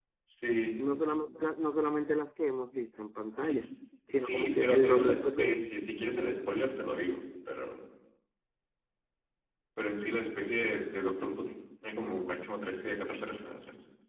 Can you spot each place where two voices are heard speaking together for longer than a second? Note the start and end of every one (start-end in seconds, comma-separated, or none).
4.2-5.6